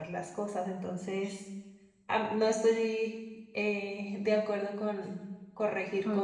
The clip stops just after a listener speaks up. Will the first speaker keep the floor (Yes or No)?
No